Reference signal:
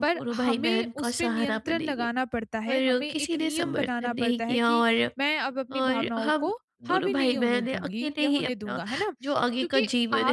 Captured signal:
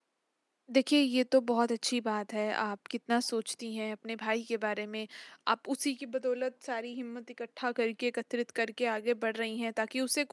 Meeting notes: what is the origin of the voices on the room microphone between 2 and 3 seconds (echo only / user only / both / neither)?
user only